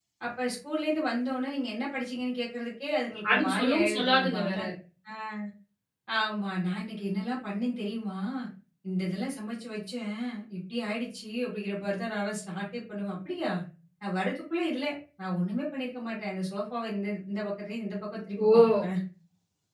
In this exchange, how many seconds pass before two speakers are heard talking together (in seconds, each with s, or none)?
3.3 s